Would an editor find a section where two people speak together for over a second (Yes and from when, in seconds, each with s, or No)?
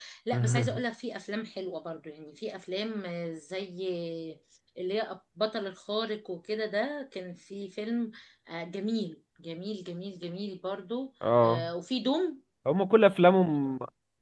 No